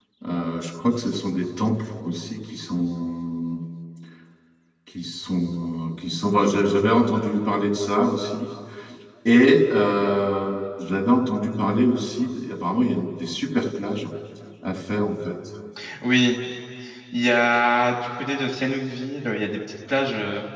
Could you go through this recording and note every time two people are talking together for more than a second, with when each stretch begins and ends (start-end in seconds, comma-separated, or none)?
none